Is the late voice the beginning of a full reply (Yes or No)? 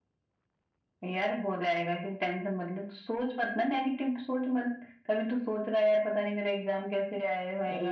Yes